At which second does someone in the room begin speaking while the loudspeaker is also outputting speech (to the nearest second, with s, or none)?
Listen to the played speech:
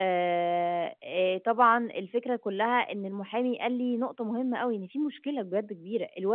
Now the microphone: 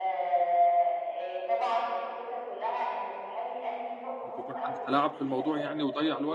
4 s